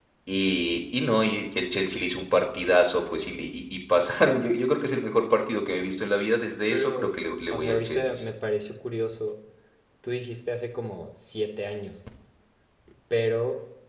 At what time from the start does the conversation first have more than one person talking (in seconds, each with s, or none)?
6.7 s